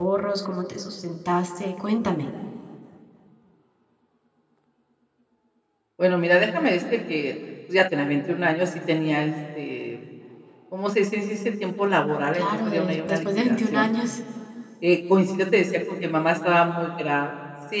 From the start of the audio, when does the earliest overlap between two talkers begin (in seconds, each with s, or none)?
12.3 s